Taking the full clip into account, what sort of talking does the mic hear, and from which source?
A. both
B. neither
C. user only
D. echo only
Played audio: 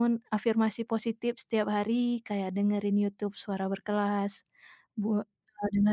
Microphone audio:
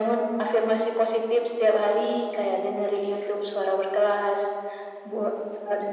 D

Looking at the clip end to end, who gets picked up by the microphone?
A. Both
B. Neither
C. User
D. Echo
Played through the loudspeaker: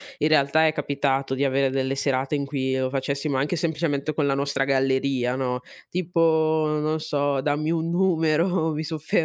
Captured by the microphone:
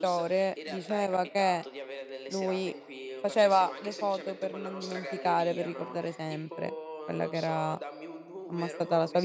A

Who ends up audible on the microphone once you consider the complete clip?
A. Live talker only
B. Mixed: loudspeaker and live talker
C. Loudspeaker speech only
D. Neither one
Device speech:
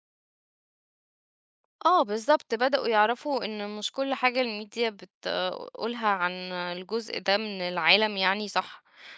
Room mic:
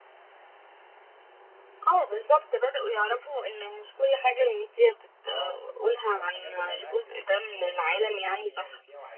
B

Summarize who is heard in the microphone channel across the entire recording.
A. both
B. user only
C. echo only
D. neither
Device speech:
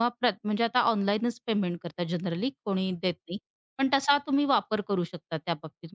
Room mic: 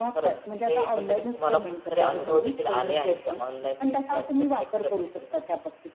A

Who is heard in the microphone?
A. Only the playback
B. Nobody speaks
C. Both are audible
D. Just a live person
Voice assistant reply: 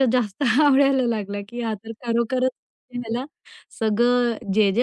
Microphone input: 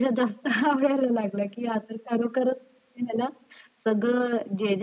A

